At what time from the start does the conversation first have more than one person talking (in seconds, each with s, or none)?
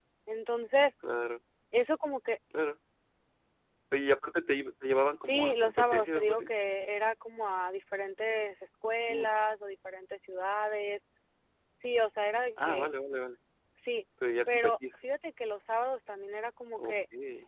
5.2 s